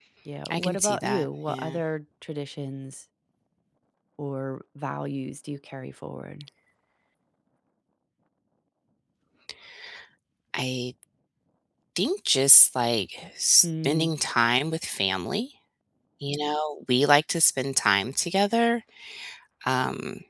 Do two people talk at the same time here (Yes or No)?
Yes